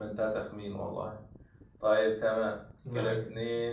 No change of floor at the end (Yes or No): Yes